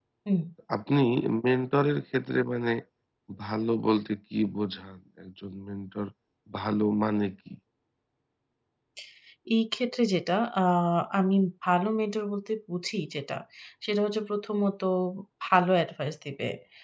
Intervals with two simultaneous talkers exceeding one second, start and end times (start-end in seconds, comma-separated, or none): none